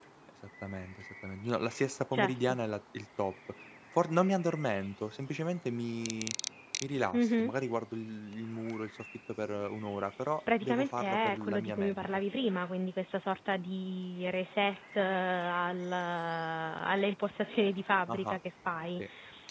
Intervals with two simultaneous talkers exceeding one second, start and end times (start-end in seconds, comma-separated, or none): 10.6-12.1